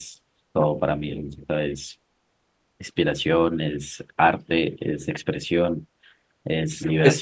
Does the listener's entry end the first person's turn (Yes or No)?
Yes